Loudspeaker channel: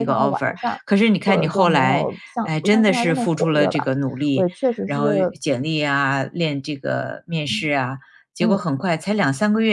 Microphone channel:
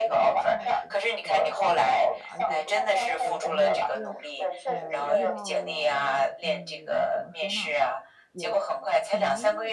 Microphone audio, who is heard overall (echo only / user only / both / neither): both